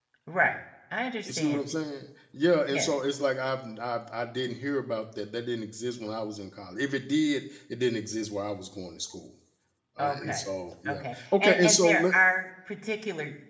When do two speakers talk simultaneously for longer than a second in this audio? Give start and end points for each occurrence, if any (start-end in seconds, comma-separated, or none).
10.9-12.1